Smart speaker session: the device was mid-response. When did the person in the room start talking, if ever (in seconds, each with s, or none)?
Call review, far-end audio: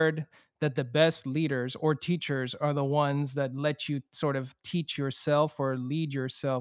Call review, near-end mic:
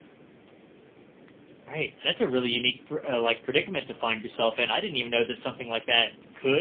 1.6 s